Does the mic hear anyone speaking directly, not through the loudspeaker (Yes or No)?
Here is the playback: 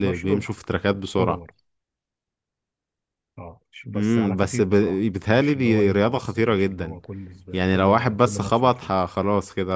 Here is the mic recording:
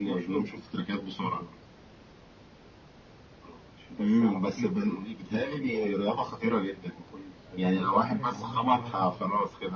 Yes